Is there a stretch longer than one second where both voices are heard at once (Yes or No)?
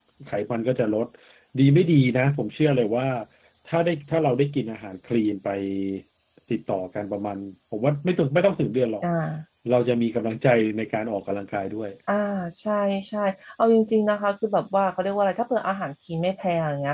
No